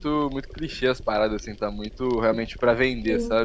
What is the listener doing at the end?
taking over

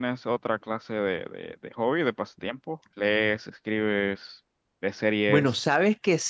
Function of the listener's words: taking over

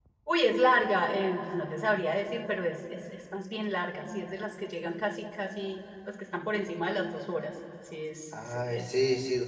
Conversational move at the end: taking over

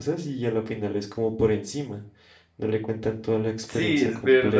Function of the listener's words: taking over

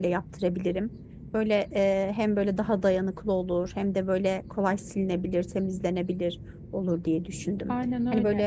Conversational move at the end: taking over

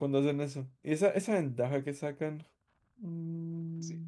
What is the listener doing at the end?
taking over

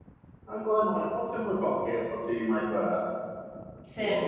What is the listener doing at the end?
taking over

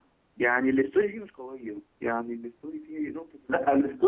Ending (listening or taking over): taking over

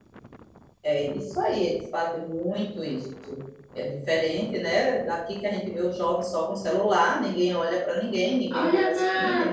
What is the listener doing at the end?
taking over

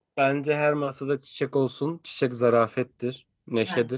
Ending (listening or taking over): listening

